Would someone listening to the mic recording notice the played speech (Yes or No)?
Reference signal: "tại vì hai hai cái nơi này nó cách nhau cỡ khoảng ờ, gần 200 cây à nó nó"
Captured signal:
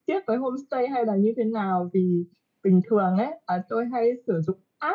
No